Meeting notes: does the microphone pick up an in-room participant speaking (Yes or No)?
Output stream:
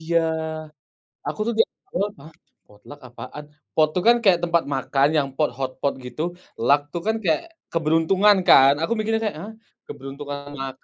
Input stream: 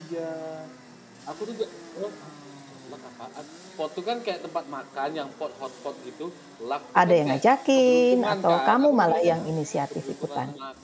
Yes